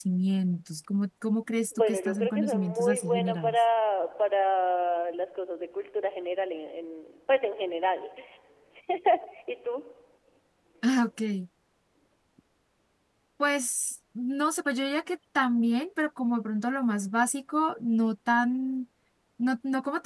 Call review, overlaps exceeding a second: present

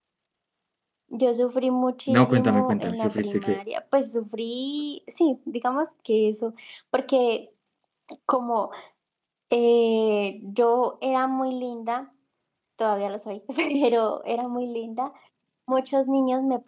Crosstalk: present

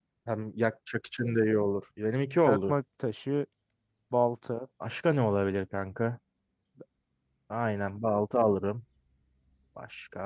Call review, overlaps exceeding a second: none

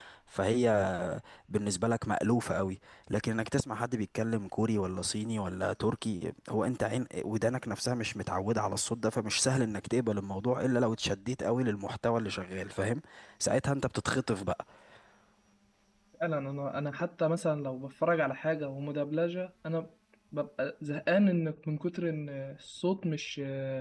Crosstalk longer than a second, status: none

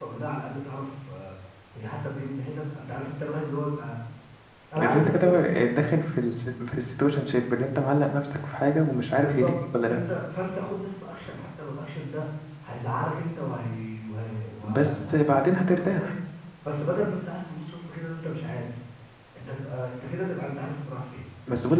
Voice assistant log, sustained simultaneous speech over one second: present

